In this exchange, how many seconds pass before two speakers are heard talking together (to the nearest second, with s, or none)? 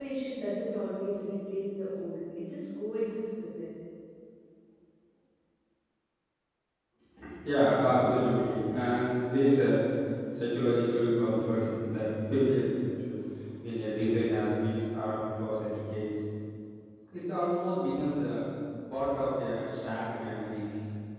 none